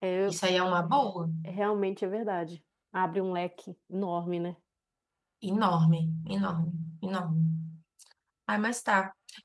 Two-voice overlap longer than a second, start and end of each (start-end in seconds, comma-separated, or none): none